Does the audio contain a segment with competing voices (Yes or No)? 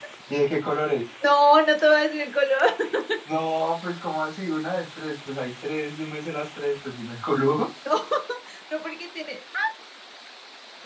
No